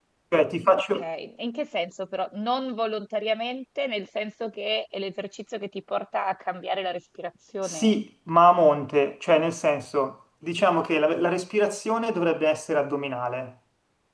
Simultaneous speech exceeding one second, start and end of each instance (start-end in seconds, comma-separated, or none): none